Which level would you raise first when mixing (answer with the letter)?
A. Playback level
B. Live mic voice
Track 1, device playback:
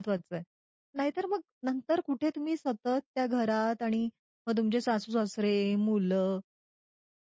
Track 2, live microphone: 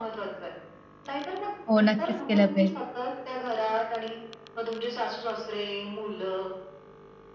A